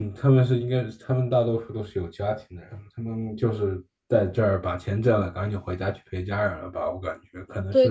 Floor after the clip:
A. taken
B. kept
A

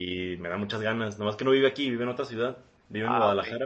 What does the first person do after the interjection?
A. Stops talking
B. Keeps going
B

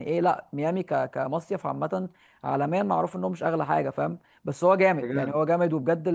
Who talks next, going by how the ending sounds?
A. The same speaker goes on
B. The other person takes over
A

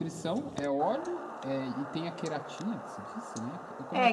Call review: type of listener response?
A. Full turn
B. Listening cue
A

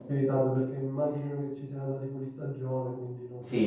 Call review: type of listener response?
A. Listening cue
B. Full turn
B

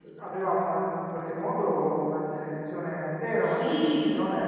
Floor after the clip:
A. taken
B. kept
B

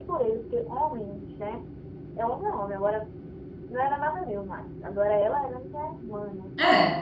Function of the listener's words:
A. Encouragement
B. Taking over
A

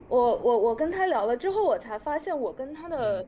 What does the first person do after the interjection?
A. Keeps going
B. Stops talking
A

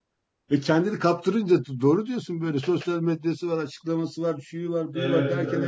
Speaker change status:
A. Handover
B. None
B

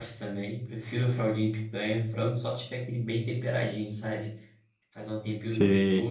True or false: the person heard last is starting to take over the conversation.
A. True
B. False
B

